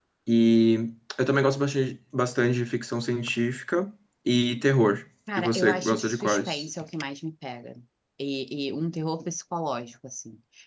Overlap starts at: 5 s

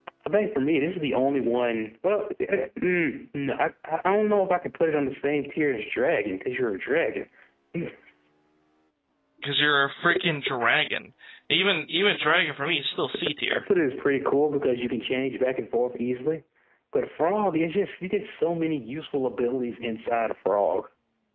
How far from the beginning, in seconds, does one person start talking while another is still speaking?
none

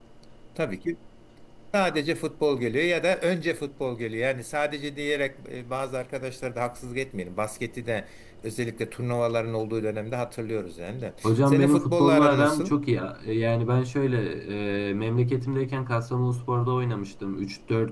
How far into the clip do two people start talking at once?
11 s

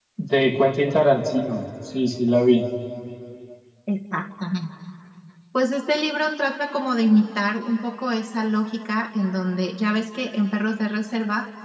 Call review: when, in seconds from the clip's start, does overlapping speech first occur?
none

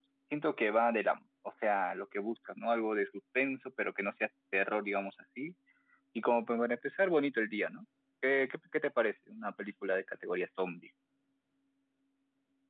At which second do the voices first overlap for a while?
none

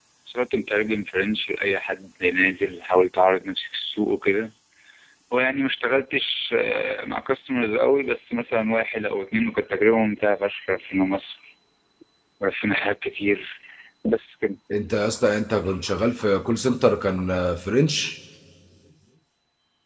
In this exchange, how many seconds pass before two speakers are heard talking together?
none

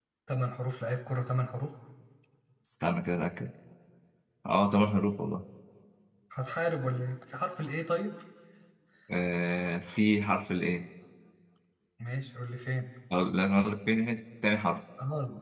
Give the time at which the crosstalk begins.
none

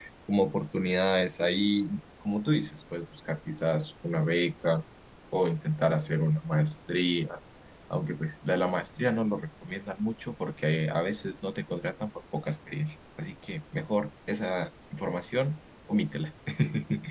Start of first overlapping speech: none

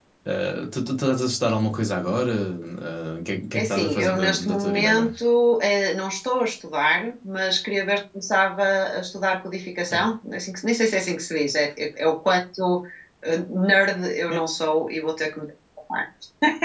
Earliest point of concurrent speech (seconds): 4 s

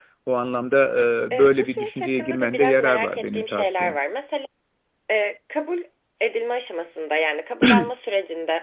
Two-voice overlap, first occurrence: 1 s

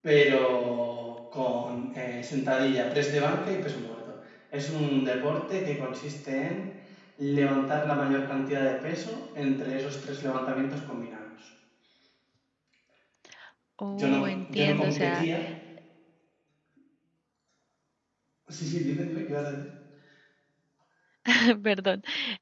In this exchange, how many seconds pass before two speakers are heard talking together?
14 s

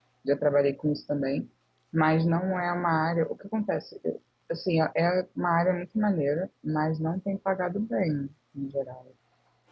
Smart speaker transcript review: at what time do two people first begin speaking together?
none

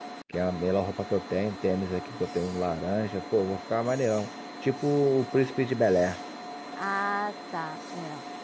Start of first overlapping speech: none

